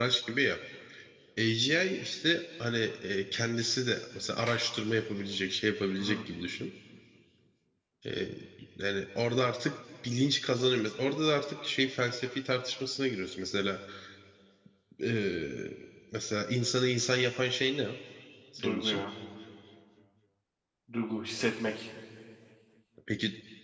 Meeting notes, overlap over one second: none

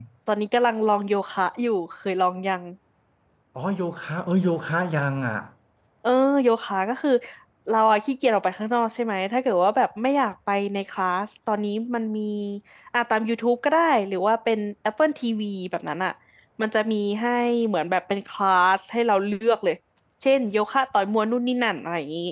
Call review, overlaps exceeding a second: none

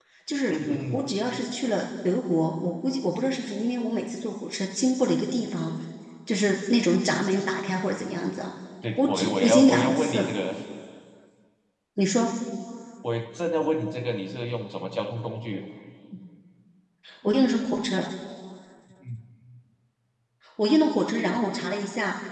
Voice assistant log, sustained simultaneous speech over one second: present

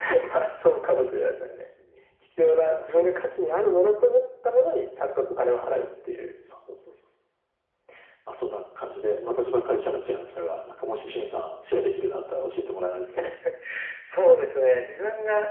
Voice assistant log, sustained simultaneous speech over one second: none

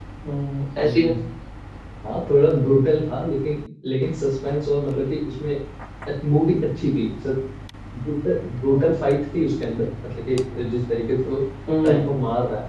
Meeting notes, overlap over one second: none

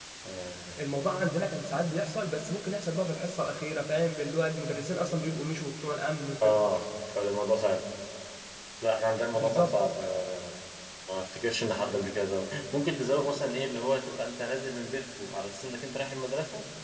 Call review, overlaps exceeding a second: none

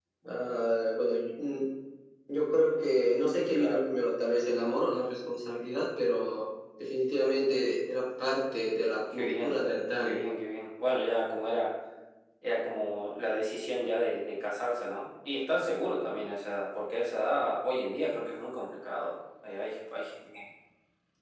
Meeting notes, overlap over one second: none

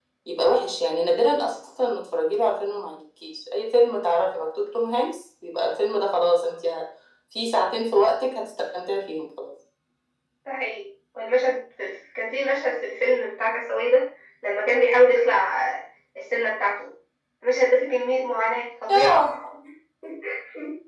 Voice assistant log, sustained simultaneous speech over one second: none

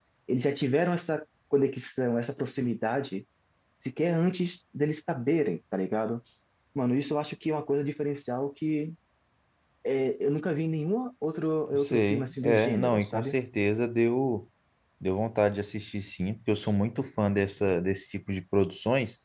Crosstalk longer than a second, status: present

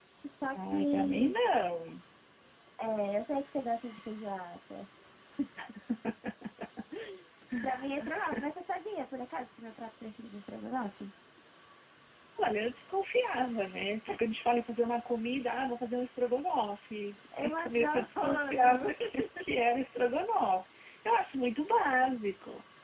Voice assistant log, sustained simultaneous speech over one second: present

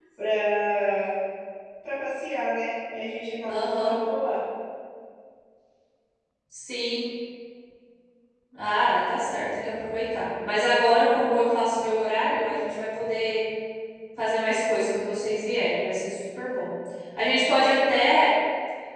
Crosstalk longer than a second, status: none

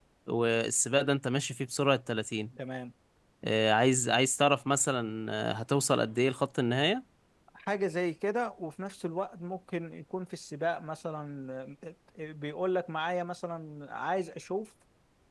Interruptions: none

